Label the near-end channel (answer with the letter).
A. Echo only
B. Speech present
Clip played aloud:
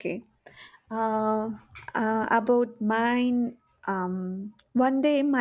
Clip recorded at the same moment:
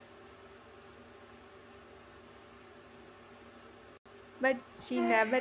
B